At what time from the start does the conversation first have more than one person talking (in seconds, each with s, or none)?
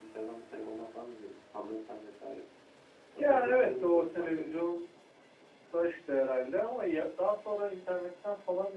3.2 s